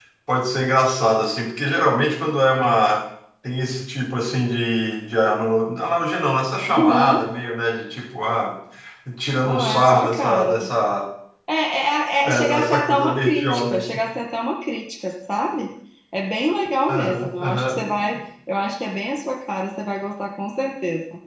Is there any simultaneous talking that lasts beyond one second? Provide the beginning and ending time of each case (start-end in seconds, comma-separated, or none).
9.4-10.7, 12.2-14.0, 16.9-18.2